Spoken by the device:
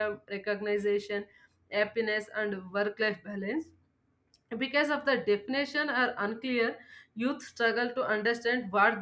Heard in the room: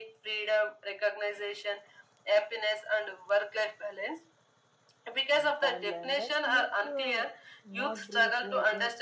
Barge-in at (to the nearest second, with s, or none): 5 s